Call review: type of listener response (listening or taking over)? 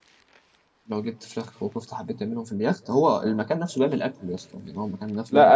taking over